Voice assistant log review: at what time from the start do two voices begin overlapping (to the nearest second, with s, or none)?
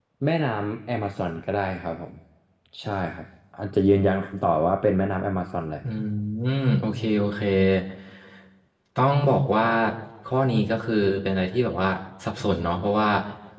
none